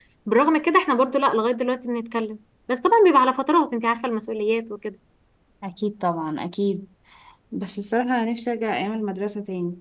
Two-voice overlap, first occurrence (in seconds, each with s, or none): none